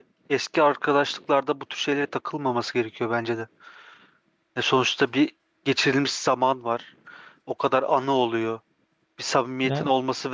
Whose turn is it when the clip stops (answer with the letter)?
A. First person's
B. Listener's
A